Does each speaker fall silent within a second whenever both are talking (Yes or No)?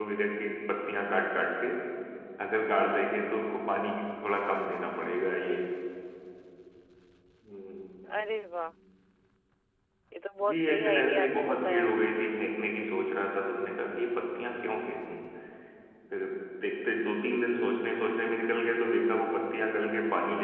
No